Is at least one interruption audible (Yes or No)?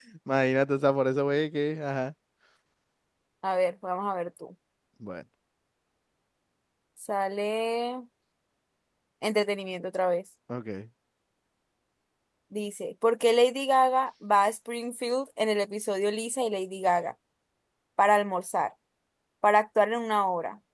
No